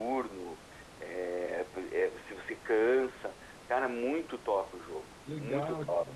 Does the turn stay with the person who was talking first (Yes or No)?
No